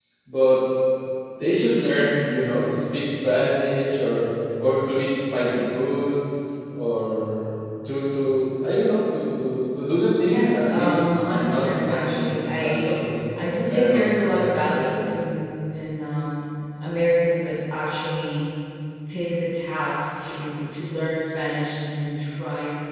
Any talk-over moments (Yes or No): Yes